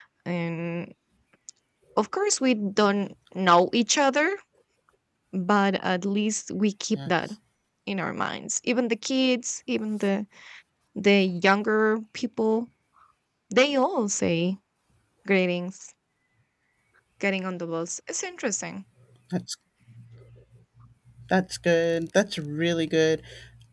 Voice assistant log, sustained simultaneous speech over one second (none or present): none